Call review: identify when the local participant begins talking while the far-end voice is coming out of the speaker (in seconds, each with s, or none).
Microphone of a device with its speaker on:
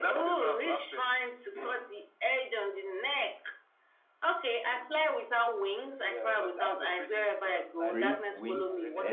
7.8 s